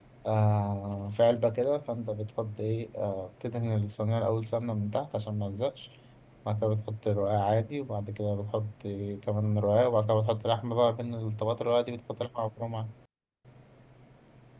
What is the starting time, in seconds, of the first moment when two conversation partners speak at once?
none

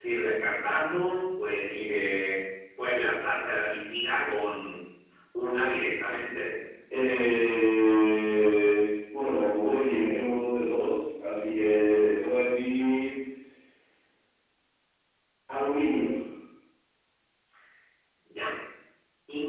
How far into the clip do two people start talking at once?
none

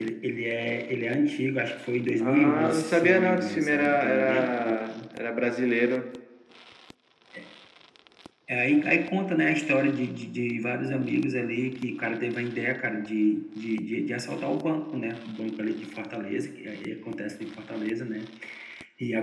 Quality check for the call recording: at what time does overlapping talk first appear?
2 s

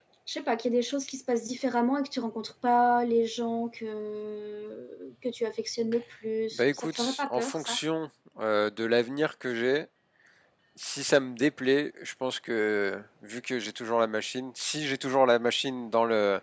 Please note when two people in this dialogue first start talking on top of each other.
7 s

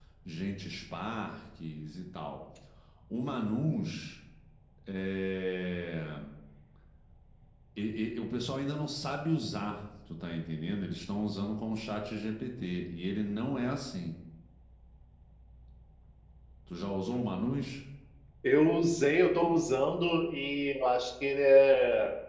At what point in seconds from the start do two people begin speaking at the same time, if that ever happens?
none

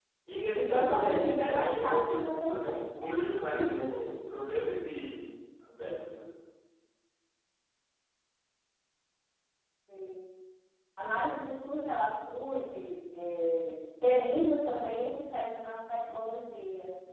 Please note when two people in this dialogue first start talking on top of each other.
1 s

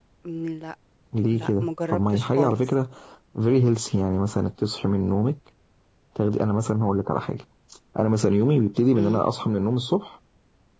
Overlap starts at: 1 s

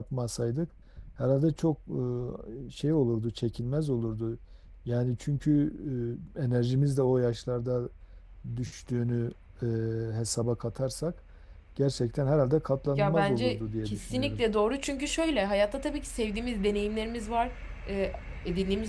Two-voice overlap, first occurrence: 13 s

